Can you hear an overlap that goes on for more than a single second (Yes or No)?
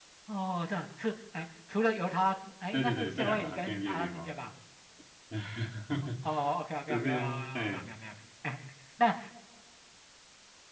Yes